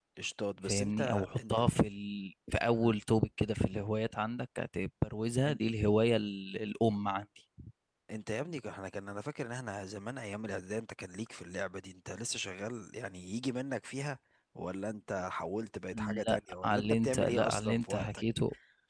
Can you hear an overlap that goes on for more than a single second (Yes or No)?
Yes